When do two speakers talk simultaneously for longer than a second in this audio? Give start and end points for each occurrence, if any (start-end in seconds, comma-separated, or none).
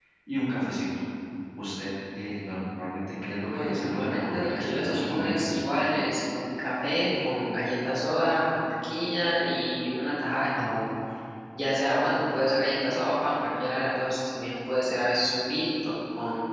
3.5-5.5